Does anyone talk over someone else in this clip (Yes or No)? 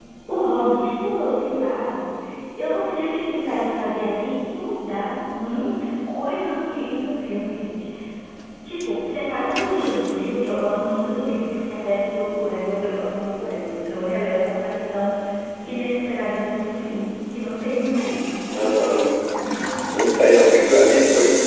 No